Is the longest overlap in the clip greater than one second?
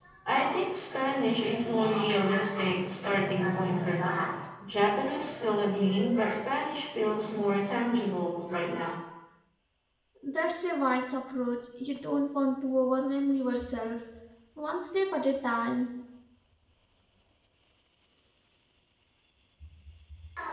No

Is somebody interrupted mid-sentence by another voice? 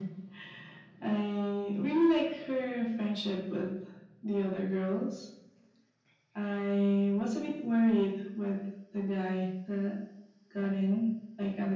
No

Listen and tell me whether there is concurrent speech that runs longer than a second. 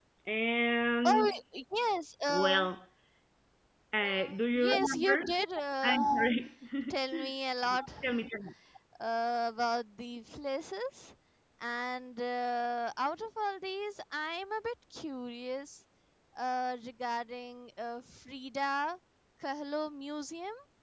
Yes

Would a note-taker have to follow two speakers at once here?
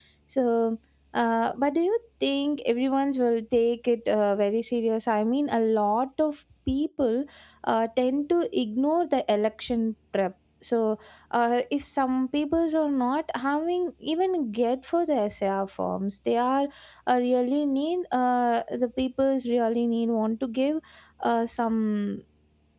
No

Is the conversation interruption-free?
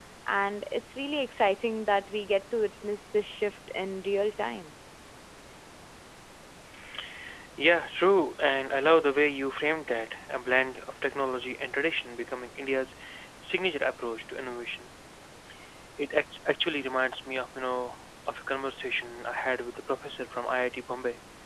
Yes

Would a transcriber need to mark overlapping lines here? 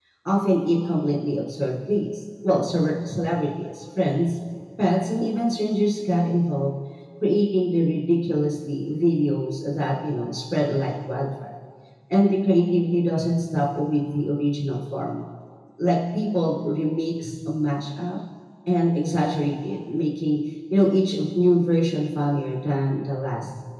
No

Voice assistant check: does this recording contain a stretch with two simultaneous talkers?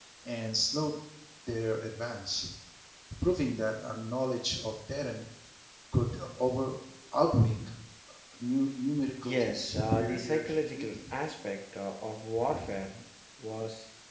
Yes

